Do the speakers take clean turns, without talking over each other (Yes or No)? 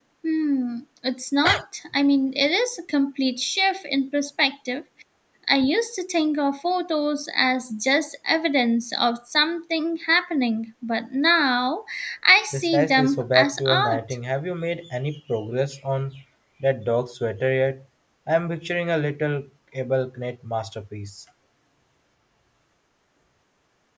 No